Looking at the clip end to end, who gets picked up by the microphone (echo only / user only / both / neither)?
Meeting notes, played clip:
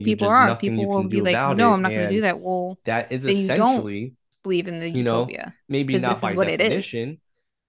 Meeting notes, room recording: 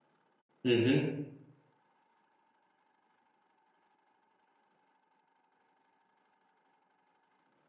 user only